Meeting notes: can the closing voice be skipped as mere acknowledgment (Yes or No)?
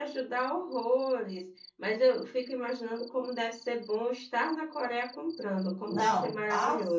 No